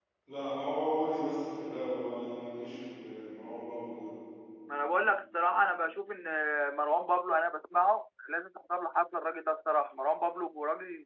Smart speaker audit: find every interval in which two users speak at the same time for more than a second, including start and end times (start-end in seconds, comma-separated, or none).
none